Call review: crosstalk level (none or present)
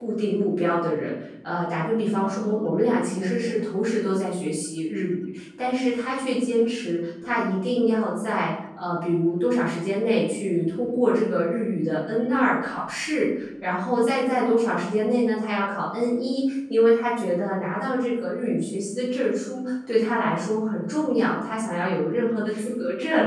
present